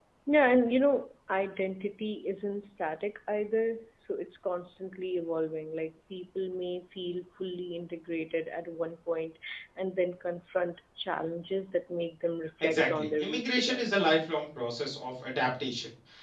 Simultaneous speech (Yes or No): Yes